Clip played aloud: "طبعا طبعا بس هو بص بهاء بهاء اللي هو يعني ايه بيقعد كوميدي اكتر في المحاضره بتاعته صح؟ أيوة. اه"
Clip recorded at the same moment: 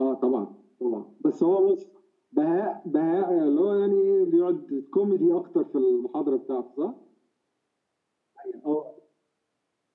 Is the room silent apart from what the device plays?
Yes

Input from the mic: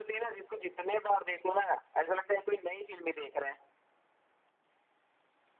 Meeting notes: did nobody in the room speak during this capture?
Yes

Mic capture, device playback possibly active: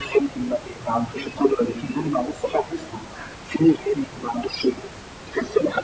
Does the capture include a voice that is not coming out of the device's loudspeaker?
No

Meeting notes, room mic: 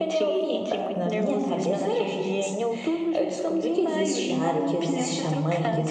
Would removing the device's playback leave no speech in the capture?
No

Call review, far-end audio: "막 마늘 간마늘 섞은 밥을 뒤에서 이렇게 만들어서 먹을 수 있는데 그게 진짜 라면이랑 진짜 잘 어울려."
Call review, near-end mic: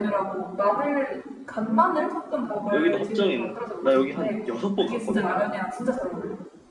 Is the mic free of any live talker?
No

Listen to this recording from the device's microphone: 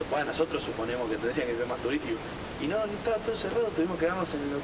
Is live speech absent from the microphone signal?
Yes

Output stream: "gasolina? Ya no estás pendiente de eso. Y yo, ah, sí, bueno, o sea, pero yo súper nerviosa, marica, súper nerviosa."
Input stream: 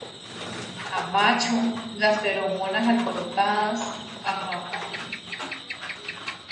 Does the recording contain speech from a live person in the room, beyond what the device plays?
Yes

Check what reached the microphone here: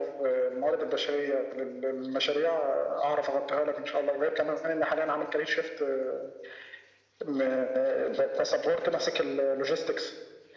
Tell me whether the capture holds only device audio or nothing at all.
Yes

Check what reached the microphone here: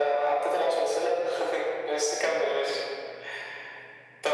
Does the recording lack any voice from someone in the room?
Yes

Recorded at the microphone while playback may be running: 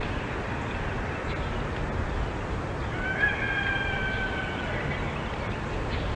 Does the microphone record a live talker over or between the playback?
No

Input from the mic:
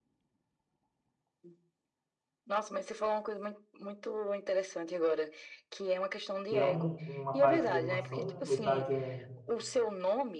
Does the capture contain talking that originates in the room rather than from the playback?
Yes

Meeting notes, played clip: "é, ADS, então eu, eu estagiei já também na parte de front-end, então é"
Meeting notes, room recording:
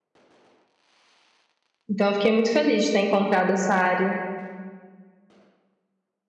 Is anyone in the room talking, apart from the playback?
Yes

